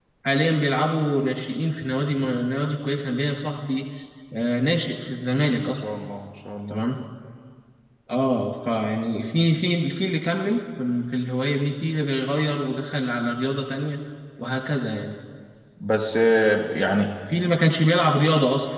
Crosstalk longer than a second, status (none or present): none